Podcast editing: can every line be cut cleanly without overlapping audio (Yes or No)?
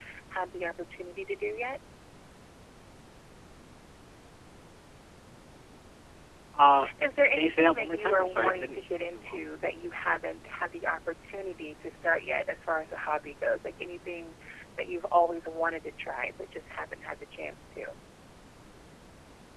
No